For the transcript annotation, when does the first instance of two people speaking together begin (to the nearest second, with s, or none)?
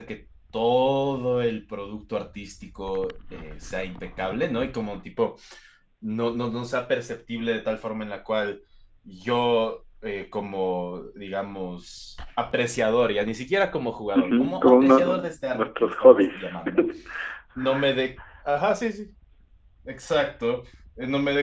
14 s